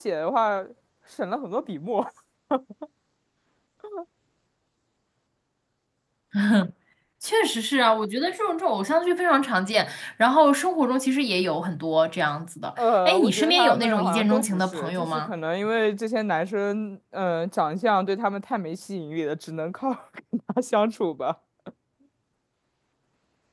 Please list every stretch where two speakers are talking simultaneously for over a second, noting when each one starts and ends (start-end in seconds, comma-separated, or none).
12.8-15.3